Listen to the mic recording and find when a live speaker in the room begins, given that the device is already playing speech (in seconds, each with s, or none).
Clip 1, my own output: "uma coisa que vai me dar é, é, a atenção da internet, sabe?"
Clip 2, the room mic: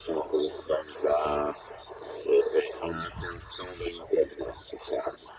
none